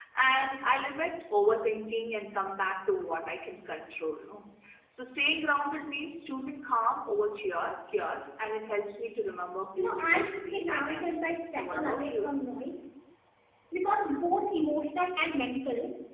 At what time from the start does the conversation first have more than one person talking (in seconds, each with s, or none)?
9.8 s